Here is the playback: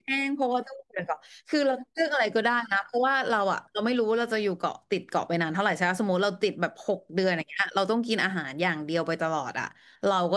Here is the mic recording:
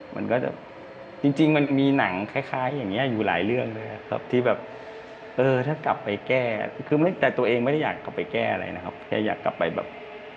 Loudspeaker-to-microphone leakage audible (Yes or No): No